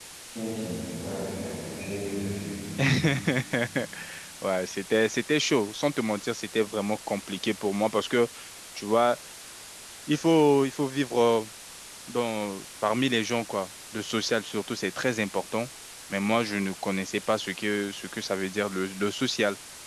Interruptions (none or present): none